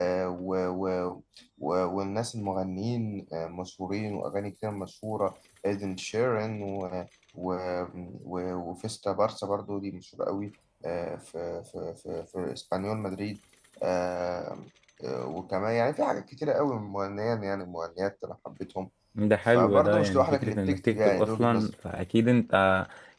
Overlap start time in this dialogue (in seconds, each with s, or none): 19.5 s